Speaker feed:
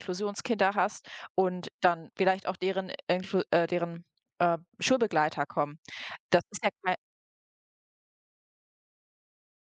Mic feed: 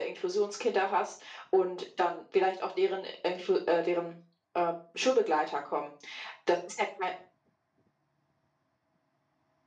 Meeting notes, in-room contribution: none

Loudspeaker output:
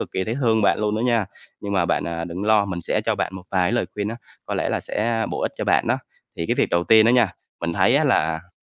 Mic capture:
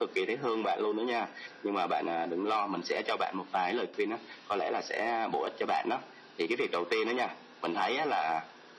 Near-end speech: none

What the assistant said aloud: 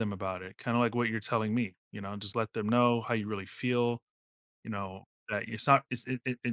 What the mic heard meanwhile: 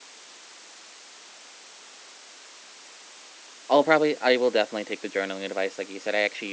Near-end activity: present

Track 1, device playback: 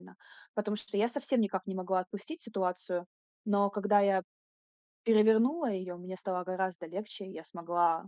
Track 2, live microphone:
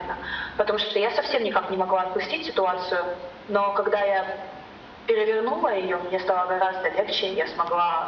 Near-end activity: none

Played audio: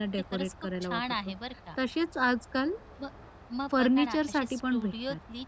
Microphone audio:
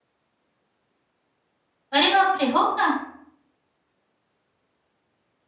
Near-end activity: present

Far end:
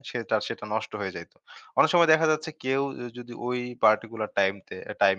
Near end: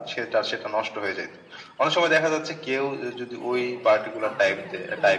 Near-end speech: present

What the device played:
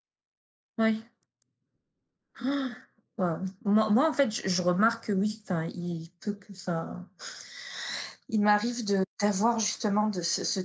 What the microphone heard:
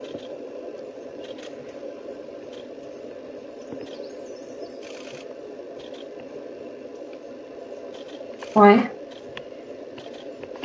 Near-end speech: present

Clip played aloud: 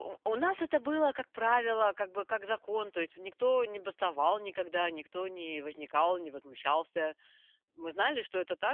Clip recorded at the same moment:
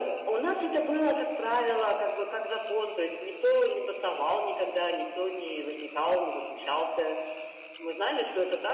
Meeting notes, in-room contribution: none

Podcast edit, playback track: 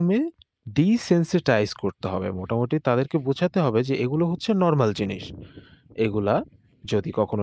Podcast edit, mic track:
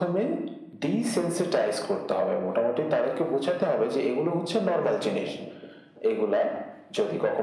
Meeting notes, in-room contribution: none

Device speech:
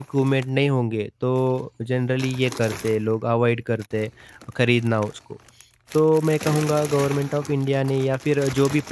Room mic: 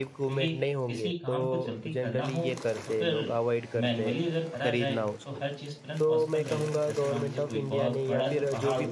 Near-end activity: present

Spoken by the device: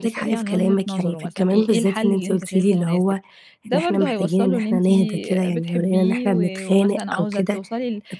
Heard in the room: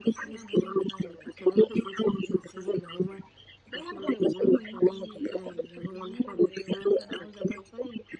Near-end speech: none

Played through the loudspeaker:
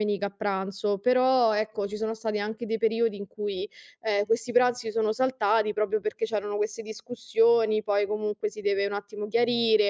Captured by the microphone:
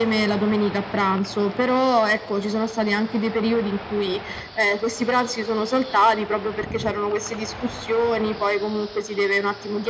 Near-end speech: none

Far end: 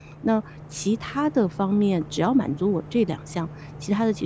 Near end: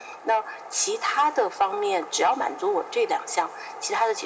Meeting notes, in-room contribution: none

